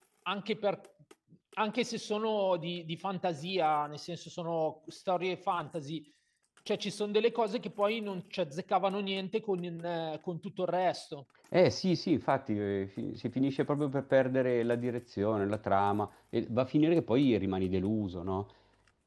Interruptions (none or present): none